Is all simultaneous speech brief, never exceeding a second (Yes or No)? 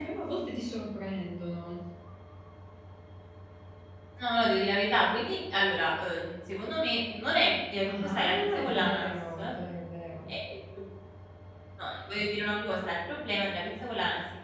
No